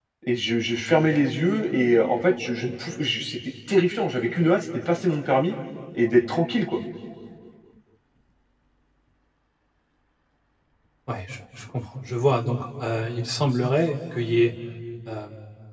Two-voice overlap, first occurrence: none

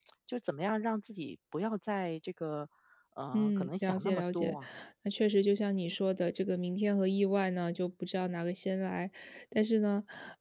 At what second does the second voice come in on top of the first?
3.3 s

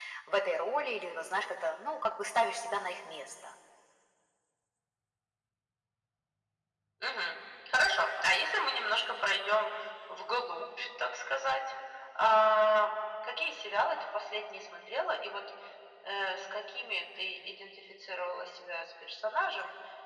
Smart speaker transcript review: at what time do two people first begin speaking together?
none

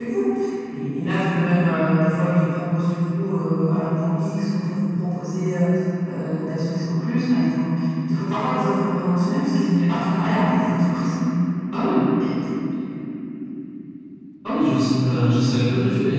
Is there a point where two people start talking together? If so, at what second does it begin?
none

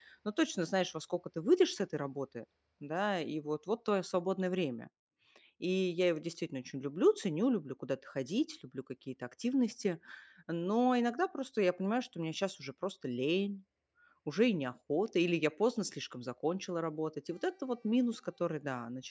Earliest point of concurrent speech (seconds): none

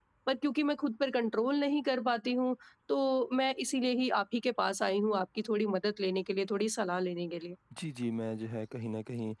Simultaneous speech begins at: none

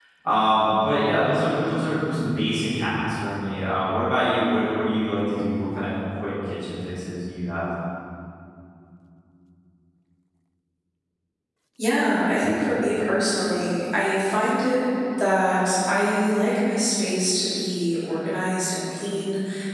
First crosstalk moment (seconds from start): none

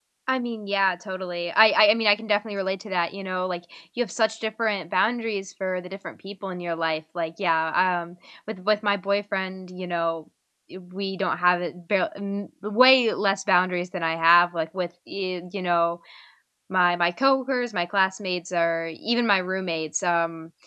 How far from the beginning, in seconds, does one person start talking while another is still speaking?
none

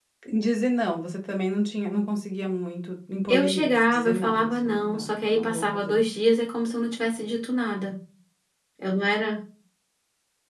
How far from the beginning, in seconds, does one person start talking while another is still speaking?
3.3 s

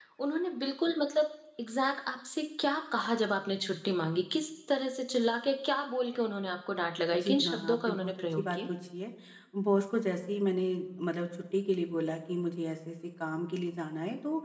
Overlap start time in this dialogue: 7.1 s

